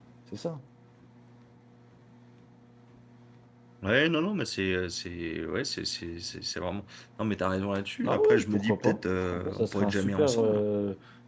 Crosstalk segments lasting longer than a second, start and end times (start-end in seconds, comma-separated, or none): 8.0-10.6